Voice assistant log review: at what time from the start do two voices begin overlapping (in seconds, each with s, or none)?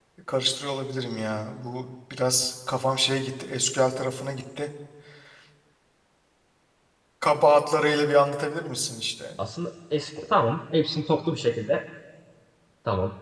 none